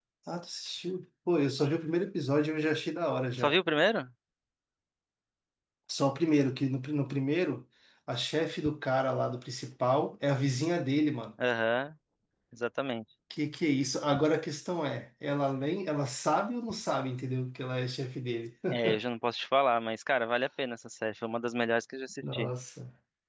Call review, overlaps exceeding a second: none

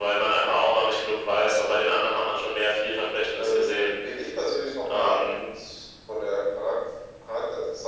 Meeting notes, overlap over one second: none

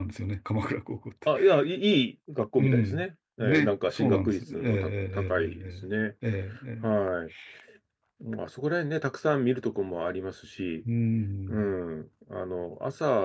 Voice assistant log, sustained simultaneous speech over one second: present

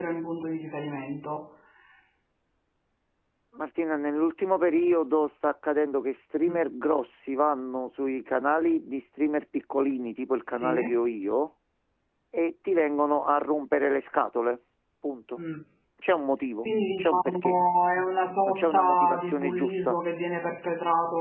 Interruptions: present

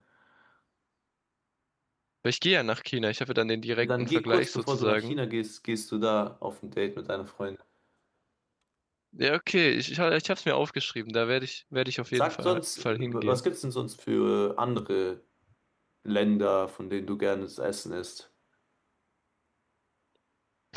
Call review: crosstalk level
present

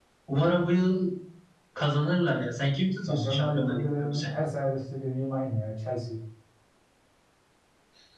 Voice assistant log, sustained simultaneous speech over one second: present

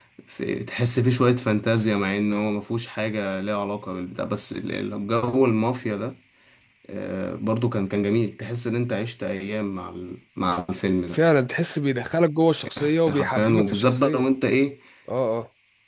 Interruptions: present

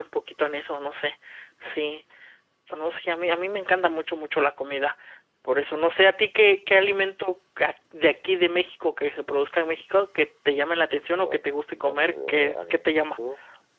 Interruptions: present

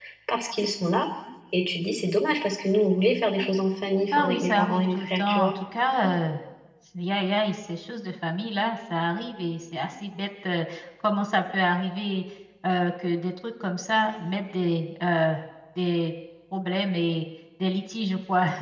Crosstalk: present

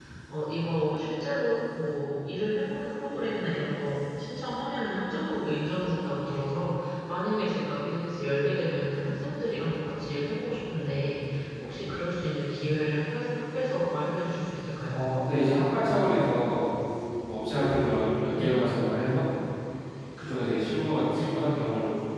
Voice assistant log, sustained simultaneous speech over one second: none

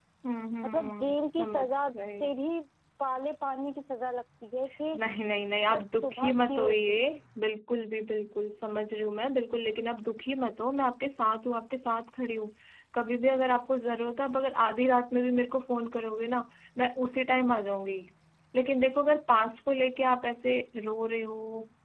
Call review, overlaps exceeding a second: present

